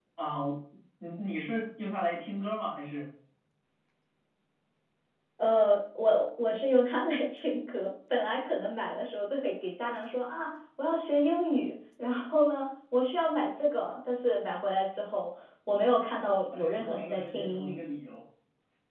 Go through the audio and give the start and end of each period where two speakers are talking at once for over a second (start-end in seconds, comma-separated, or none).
16.5-17.8